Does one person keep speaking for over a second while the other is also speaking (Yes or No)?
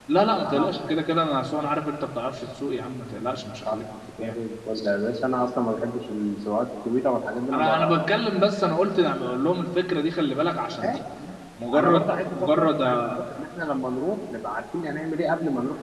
Yes